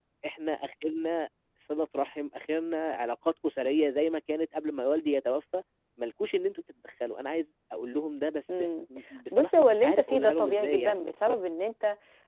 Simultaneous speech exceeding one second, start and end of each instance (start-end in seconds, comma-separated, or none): 9.3-11.0